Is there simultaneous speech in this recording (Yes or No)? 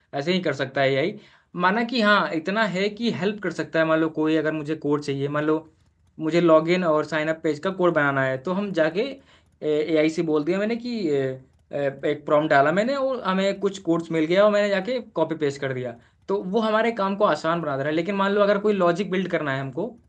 No